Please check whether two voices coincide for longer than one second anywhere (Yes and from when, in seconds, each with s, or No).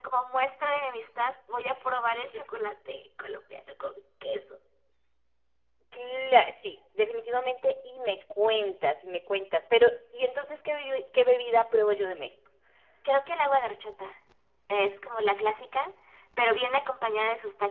No